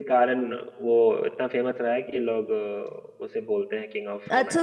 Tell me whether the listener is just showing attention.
No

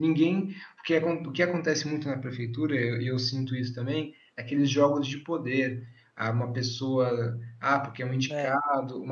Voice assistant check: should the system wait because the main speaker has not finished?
Yes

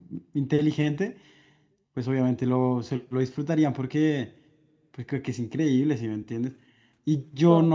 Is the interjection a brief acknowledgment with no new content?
Yes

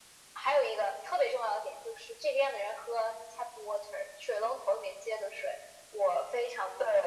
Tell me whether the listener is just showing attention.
Yes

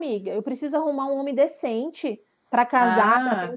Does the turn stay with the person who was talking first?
No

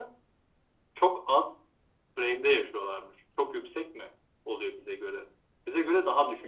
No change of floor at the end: Yes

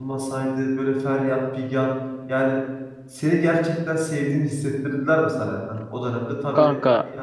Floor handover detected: No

